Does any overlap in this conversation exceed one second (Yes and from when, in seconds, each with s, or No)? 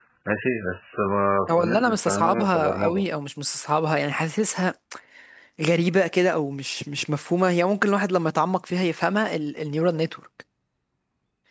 Yes, from 1.5 s